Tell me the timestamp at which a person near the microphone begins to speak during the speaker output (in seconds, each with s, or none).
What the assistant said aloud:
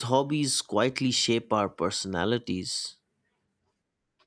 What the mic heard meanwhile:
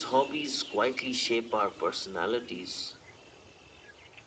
none